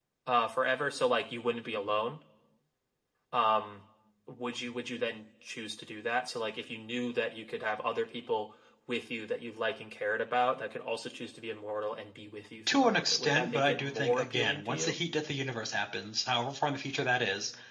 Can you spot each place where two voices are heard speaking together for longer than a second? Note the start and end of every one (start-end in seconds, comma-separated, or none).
12.7-14.9